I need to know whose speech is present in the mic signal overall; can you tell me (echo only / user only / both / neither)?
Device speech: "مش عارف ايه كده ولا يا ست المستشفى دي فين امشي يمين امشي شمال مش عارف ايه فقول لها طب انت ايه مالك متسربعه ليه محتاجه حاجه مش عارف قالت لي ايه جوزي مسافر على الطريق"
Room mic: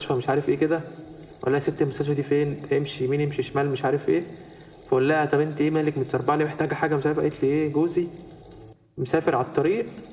echo only